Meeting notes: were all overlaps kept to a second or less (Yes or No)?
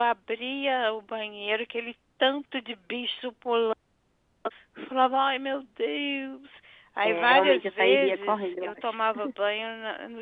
No